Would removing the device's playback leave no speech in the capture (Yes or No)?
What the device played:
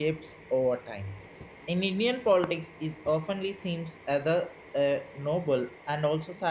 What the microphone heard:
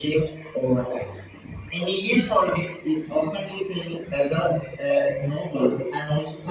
Yes